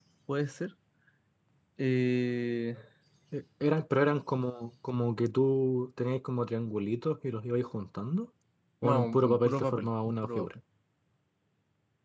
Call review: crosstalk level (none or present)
present